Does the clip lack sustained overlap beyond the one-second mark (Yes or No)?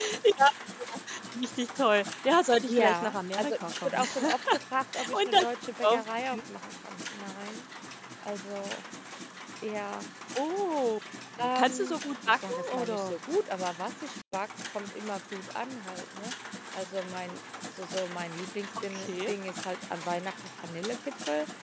No